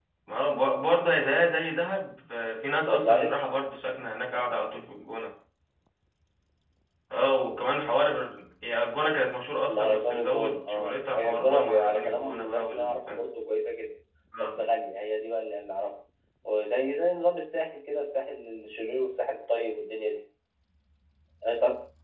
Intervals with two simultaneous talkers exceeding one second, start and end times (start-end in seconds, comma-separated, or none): 9.7-13.2